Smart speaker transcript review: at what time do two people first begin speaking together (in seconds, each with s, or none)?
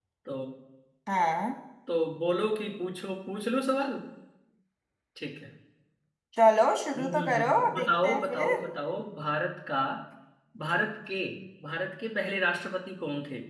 7.0 s